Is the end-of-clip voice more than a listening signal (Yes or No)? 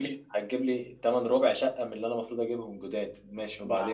Yes